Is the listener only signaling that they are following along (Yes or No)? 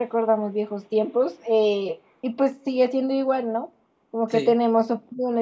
Yes